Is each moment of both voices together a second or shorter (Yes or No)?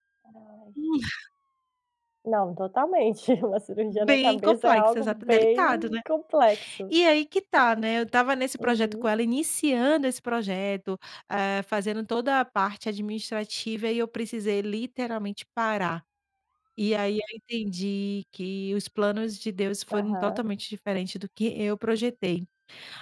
No